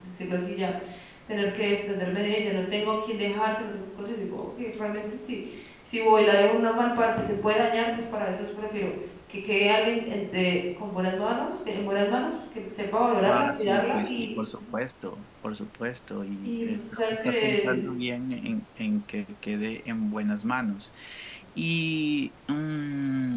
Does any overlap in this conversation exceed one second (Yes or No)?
Yes